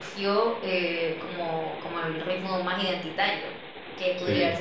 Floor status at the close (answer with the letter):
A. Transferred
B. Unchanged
B